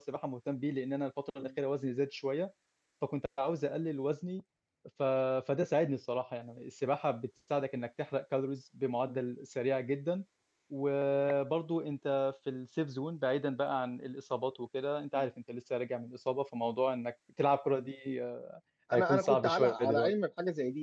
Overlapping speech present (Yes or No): Yes